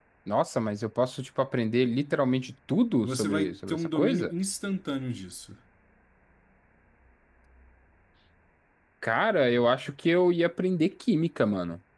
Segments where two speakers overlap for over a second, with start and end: 3.0-4.3

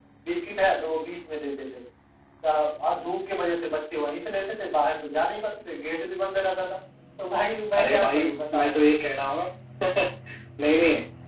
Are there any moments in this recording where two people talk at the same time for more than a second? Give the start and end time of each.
none

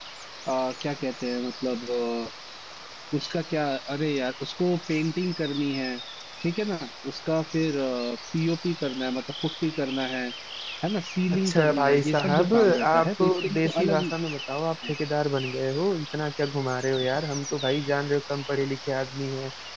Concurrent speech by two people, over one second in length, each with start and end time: 11.3-14.0

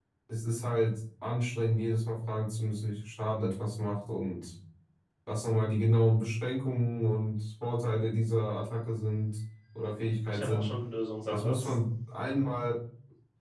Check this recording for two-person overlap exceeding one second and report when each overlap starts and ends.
none

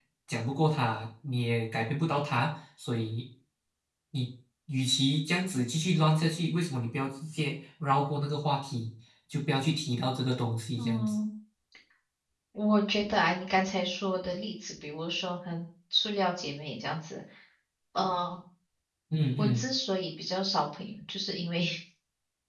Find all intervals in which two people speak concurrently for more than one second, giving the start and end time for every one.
none

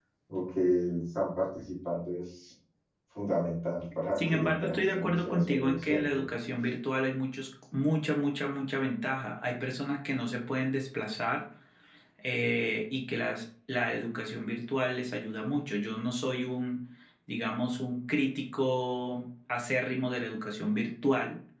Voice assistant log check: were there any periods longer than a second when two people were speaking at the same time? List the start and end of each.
4.2-6.1

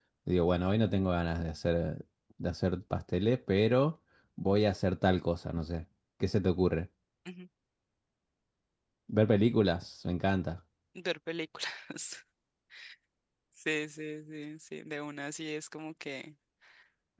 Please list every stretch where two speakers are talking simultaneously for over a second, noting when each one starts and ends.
none

